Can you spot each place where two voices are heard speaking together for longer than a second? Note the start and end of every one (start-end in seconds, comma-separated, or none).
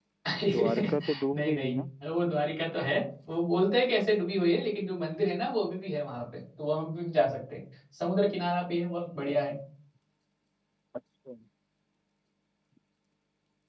0.5-1.8